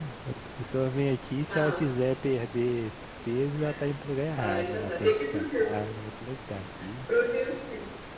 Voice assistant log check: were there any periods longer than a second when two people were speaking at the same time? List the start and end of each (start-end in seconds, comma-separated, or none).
4.3-5.7